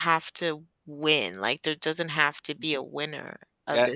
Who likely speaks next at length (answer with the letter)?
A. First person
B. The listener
B